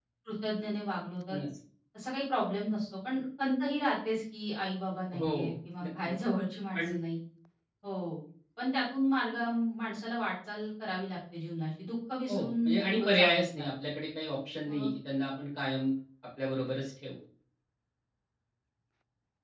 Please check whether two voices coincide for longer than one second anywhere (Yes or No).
Yes